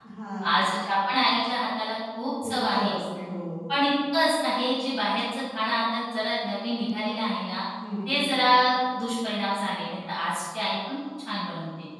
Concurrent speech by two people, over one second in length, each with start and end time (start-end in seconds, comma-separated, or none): none